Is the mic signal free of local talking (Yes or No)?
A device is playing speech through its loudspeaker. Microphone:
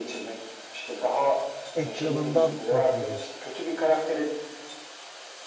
No